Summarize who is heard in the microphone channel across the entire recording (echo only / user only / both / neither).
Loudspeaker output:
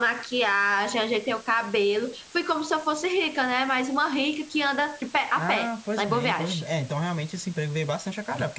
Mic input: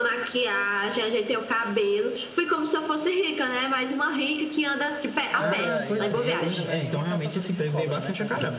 both